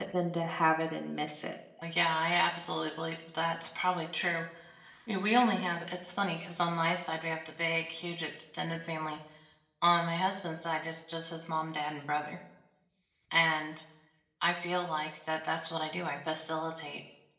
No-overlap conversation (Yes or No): Yes